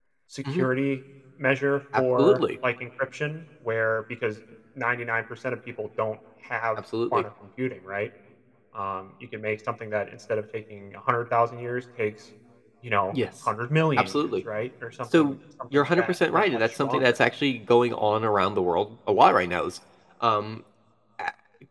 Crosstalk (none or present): present